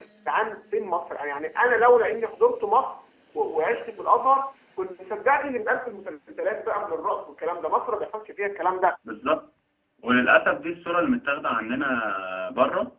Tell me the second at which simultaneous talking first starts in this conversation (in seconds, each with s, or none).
none